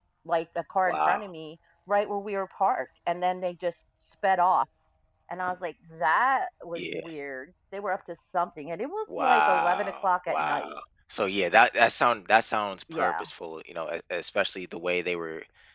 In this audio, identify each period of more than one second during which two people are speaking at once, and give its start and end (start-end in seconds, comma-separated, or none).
9.2-10.7